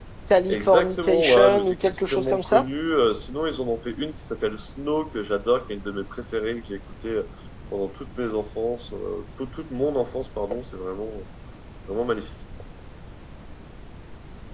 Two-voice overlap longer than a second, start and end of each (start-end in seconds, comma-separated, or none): 0.5-2.6